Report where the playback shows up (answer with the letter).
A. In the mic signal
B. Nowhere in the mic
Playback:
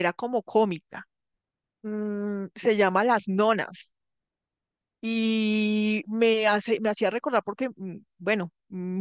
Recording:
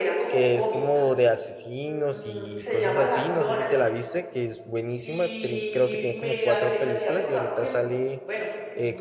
A